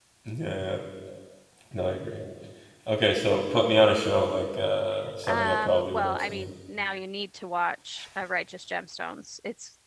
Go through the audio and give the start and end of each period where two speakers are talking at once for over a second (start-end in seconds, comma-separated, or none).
5.3-6.5